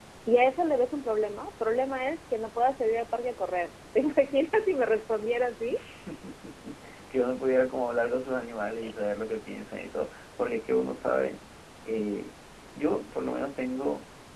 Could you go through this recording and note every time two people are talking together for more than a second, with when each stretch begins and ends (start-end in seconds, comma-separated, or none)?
none